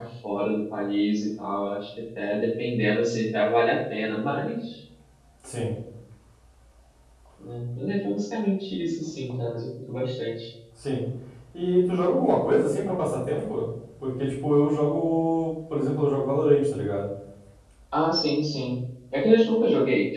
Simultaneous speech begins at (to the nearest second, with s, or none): none